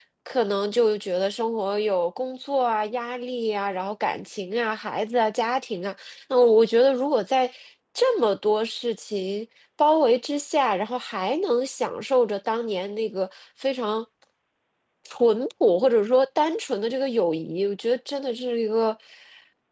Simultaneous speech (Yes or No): No